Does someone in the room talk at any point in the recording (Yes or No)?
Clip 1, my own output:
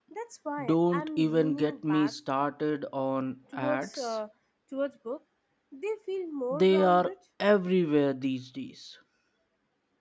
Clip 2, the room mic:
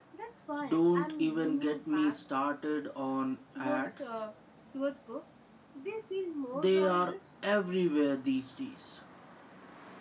No